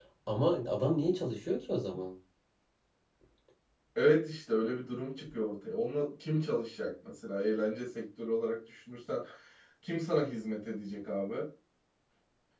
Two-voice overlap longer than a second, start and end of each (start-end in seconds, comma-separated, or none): none